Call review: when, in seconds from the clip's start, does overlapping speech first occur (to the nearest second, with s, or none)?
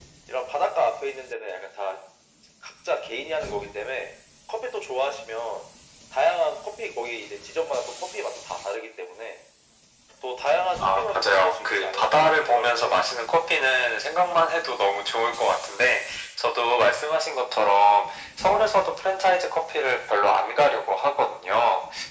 11 s